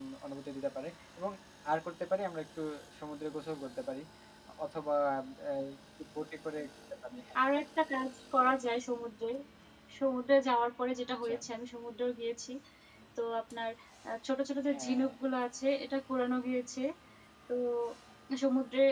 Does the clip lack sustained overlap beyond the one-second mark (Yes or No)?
Yes